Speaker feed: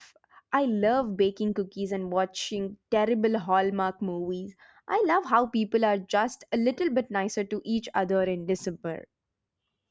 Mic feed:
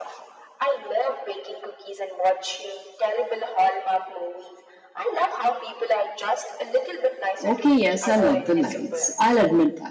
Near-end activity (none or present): present